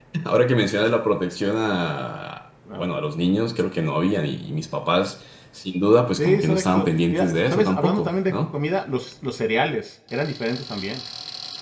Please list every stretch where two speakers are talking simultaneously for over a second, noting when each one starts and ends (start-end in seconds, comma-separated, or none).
6.2-8.4